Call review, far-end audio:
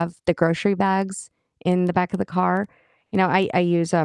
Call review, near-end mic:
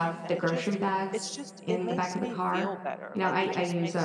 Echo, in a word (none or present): present